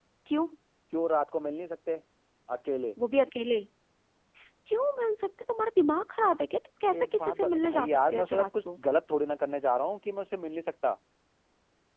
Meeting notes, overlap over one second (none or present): present